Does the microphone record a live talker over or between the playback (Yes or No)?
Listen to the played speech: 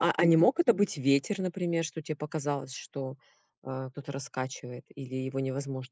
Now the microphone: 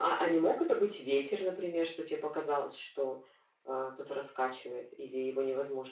No